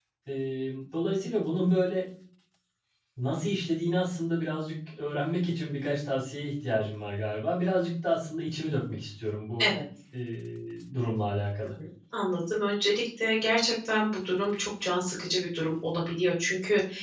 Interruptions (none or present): none